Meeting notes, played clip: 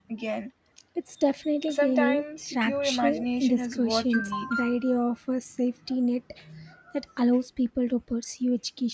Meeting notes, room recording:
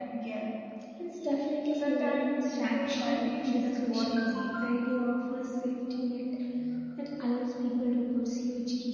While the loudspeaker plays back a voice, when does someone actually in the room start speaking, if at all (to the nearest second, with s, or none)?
none